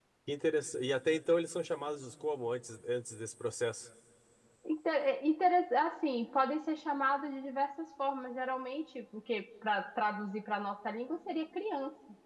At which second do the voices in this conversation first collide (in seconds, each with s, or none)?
none